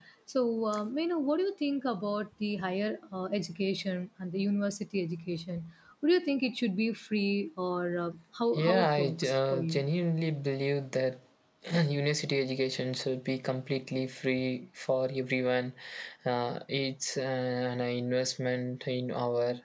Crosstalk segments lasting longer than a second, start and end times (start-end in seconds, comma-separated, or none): 8.5-9.8